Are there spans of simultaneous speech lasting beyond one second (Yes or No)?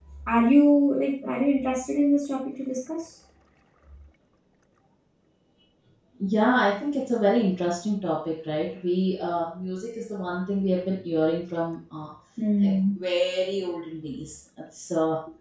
No